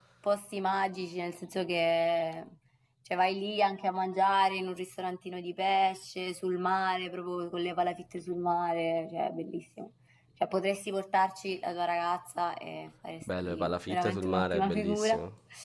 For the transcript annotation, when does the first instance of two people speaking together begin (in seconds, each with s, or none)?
13.2 s